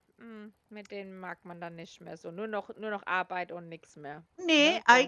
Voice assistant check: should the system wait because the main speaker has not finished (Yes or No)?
No